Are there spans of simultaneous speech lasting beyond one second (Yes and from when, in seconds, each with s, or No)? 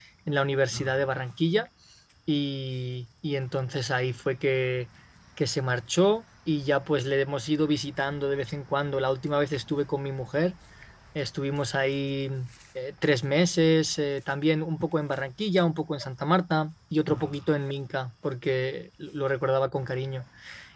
No